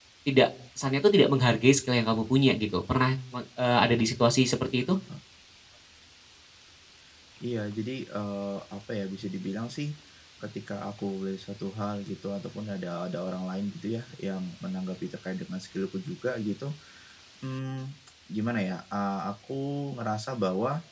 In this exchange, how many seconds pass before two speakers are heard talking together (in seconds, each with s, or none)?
none